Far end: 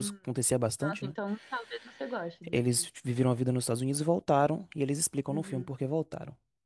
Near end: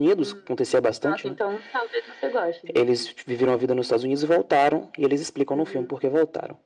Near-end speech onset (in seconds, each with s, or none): none